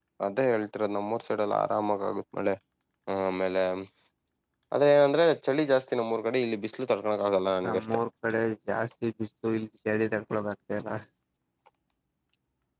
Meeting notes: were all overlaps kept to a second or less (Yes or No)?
Yes